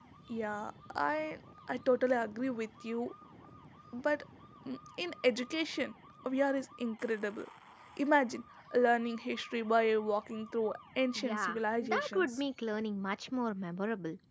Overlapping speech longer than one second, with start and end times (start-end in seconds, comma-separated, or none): 11.2-12.4